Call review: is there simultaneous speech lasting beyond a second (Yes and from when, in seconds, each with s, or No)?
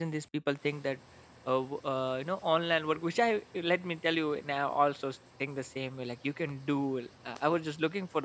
No